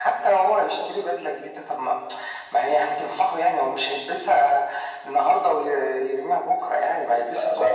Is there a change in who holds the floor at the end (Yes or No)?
Yes